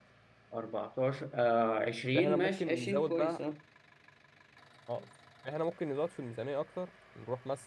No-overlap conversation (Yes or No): No